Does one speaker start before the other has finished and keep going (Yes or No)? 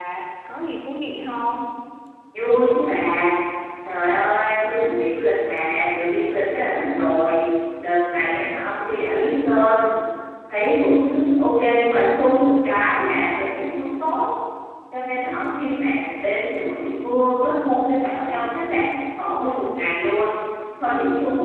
No